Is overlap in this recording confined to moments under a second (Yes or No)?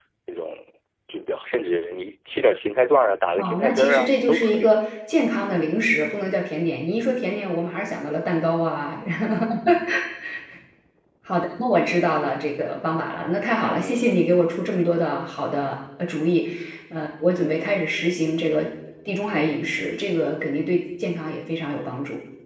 No